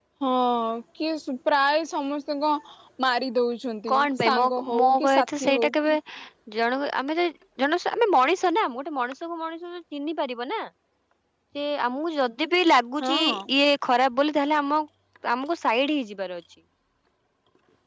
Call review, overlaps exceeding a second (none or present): present